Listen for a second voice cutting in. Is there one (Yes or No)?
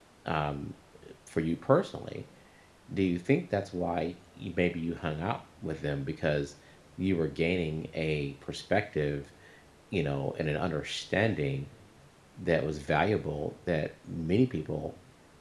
No